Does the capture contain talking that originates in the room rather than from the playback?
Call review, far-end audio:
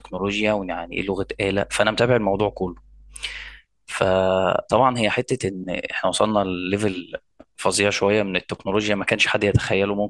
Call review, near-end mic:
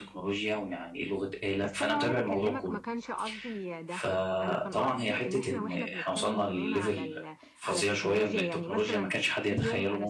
Yes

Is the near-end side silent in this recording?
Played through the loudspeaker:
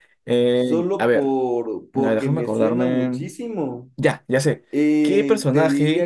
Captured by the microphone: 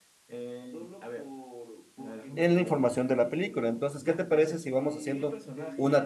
No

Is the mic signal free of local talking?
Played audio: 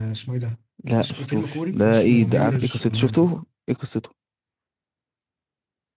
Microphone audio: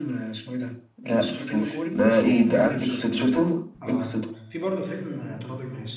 No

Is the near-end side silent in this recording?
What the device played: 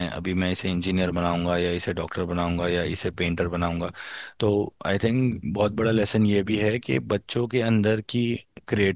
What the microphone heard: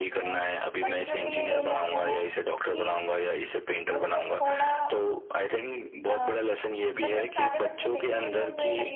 No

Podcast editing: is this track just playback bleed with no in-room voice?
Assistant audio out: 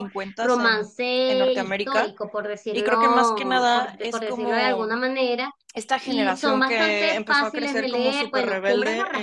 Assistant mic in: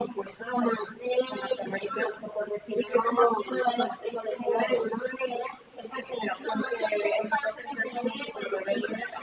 Yes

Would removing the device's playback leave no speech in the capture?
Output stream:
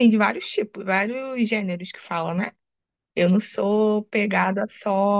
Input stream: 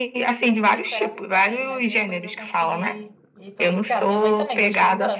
No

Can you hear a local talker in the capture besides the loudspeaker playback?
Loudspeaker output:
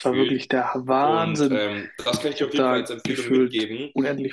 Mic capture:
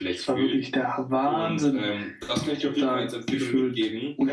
No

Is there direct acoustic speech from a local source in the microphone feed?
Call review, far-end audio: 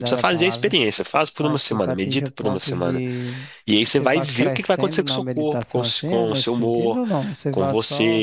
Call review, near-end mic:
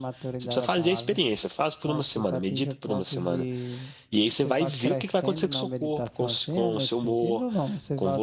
No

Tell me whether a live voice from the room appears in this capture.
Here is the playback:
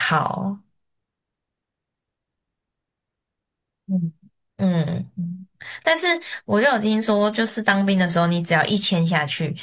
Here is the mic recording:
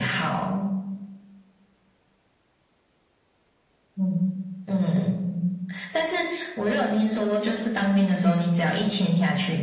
No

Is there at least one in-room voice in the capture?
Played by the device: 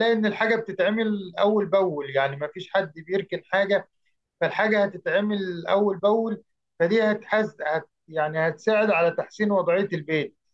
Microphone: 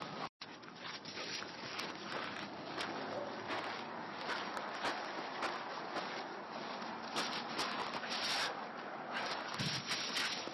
No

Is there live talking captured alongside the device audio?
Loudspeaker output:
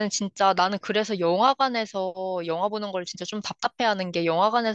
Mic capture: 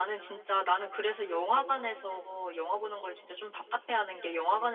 No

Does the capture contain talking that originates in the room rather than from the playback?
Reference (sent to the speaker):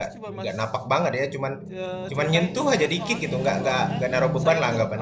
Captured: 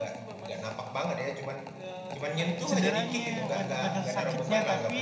Yes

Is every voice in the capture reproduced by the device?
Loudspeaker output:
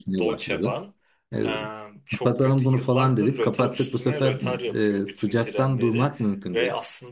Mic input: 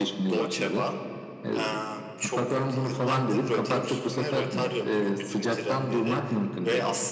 Yes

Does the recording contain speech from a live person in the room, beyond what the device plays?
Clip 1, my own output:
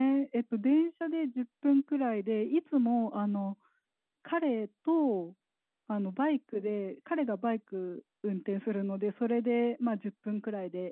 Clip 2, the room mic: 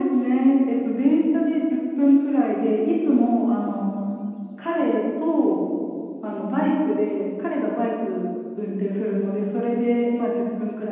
No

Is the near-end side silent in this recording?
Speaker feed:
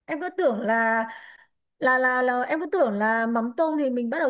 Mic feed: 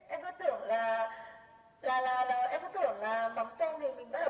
Yes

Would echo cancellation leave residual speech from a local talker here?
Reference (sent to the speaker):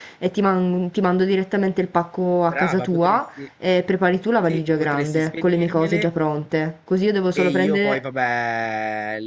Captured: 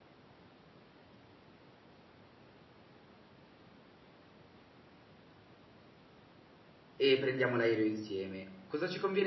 Yes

